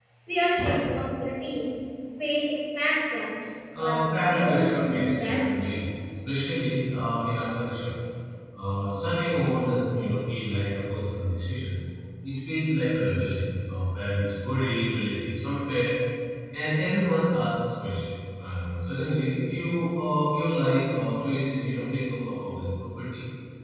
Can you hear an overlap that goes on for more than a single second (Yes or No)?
Yes